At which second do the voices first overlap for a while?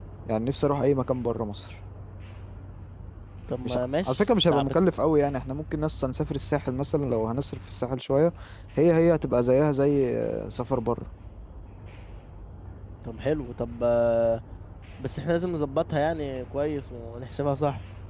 3.6 s

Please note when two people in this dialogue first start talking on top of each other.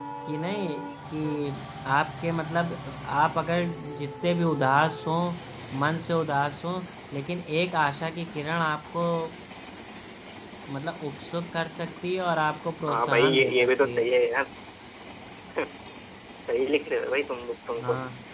12.9 s

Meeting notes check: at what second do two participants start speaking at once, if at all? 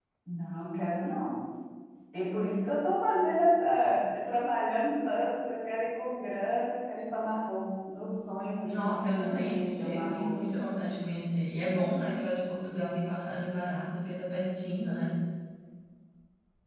8.6 s

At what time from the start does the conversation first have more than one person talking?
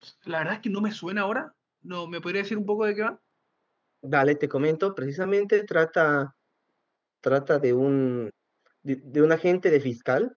none

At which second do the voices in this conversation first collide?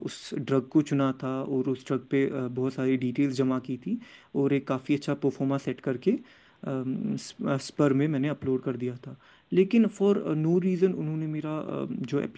none

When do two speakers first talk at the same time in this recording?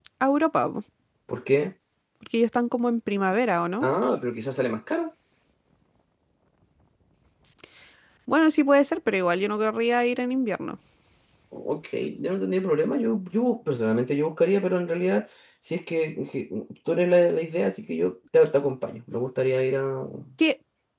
none

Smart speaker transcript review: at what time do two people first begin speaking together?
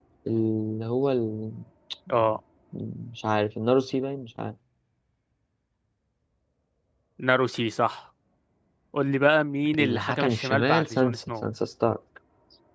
9.8 s

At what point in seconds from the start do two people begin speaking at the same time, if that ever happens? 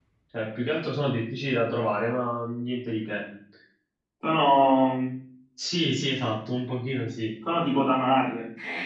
none

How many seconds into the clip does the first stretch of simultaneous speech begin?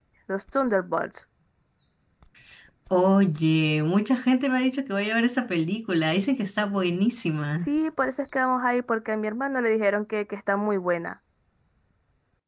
none

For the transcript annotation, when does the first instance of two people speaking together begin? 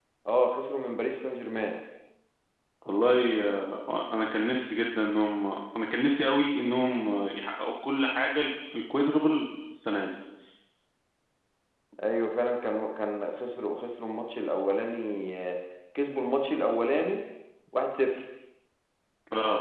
none

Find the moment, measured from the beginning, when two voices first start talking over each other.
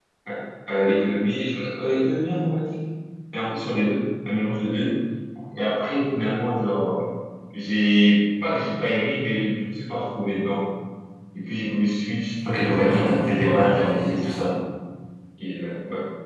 12.4 s

